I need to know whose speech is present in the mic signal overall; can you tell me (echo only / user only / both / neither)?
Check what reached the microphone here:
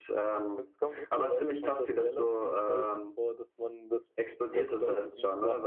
both